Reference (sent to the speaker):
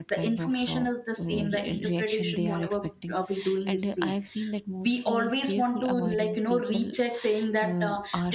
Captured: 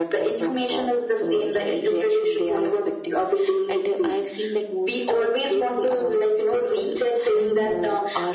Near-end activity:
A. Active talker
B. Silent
A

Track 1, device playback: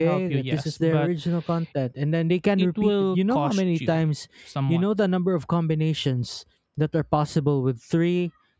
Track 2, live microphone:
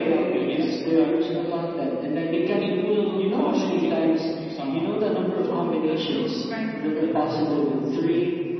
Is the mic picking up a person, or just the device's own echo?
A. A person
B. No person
A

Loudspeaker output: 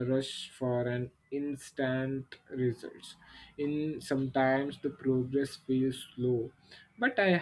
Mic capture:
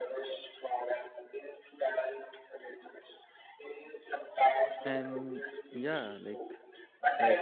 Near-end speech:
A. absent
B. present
B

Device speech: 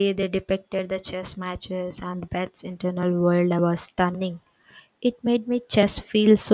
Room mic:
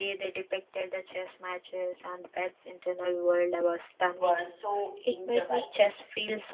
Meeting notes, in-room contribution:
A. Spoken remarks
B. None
A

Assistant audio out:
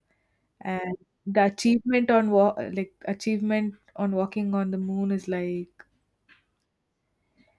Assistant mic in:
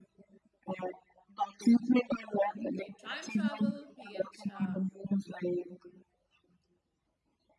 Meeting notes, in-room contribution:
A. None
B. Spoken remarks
B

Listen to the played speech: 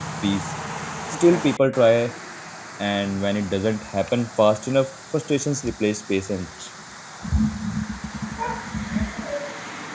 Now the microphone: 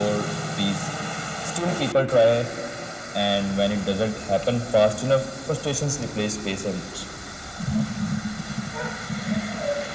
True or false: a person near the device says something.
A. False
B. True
A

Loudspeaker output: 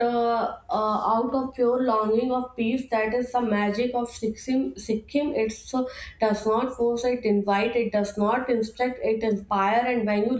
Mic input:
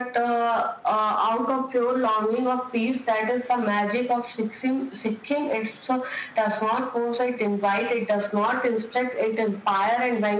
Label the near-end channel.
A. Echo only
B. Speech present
A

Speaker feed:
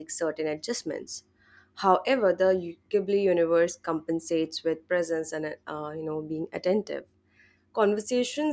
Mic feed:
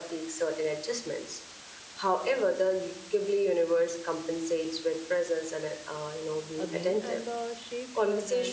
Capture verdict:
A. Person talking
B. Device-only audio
A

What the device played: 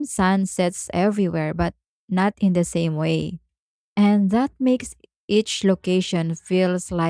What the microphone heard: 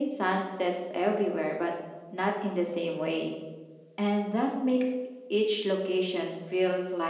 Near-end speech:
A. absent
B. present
A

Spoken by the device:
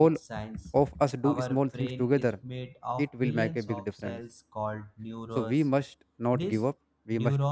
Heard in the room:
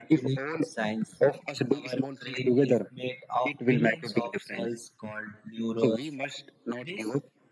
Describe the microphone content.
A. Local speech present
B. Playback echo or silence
B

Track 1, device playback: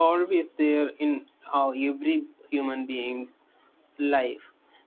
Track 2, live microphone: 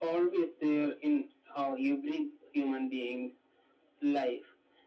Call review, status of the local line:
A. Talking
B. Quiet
B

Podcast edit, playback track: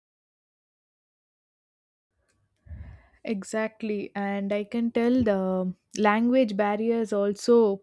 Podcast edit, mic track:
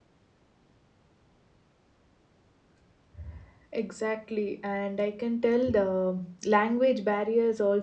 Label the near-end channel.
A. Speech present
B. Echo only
B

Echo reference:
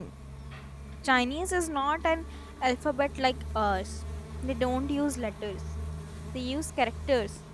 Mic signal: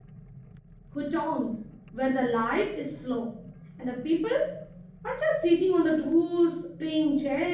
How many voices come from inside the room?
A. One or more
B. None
A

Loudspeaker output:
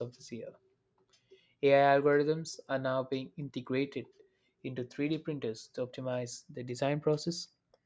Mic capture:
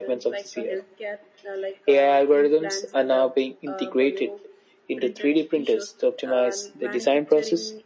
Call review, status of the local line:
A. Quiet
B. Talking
B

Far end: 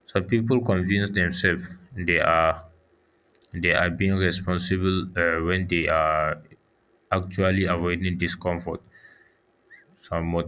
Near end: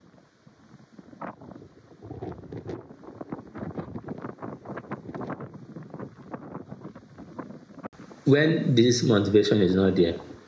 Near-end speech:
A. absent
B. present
B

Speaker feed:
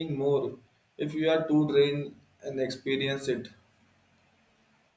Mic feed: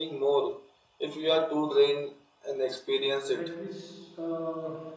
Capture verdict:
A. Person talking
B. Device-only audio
A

